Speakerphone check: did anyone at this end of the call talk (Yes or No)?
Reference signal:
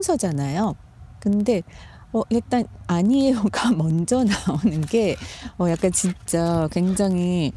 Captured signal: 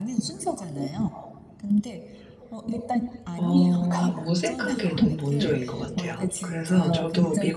Yes